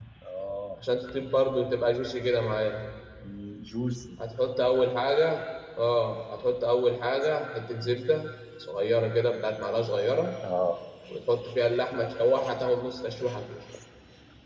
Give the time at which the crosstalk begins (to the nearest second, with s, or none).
none